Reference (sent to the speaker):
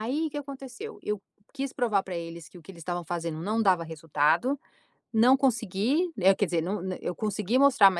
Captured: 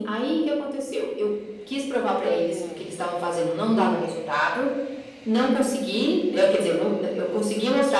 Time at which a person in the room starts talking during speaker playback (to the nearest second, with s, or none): 2 s